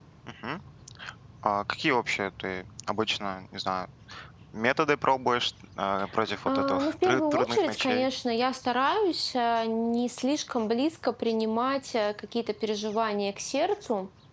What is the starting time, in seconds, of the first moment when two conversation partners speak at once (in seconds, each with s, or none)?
6.5 s